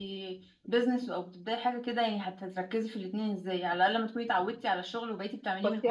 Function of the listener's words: taking over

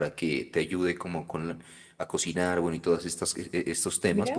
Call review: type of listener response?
taking over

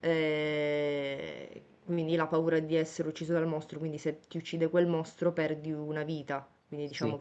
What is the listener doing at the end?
listening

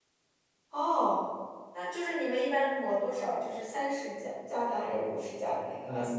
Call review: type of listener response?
taking over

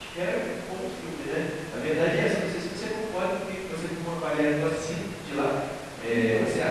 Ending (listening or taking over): listening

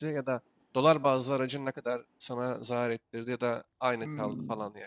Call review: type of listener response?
taking over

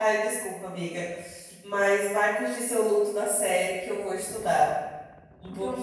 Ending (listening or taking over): taking over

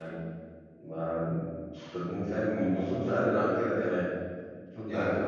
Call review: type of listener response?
listening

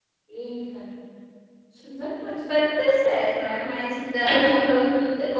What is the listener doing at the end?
listening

